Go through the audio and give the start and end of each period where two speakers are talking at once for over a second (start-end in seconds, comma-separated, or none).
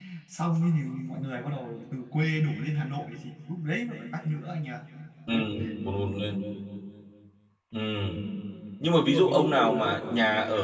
none